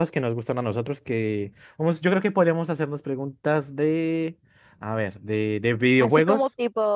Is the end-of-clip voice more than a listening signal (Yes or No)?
Yes